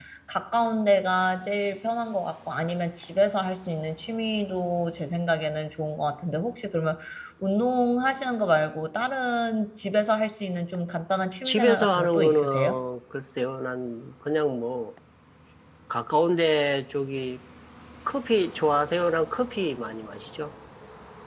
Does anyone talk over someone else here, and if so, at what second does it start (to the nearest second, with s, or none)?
11 s